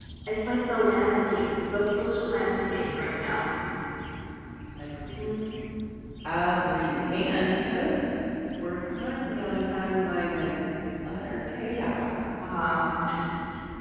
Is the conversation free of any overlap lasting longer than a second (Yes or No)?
Yes